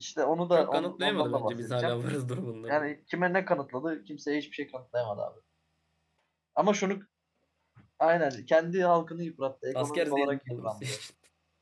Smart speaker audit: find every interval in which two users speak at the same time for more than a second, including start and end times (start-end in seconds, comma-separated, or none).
0.5-1.9, 9.7-11.0